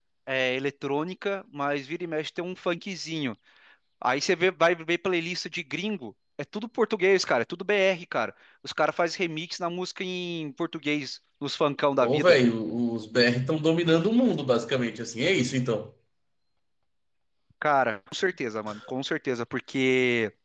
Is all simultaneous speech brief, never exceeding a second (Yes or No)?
Yes